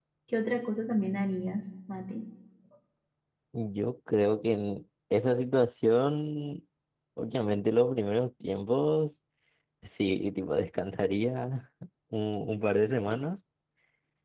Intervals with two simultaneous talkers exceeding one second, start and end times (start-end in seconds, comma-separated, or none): none